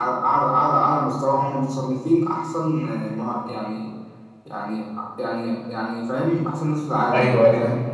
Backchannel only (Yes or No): No